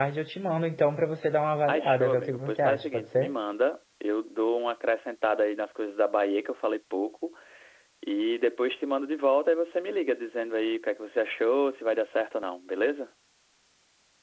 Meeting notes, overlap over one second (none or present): present